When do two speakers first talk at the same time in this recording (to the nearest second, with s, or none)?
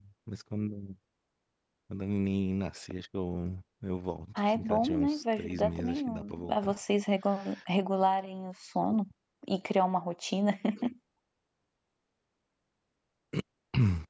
4 s